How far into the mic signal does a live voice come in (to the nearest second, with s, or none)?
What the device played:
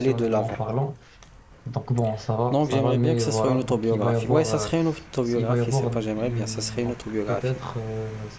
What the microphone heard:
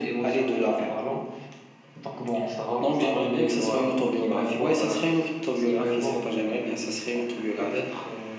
none